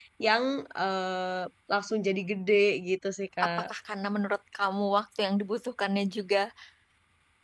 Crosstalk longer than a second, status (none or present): none